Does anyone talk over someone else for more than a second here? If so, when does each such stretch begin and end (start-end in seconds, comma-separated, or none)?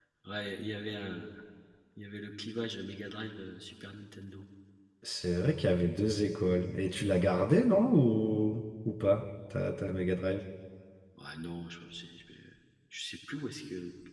none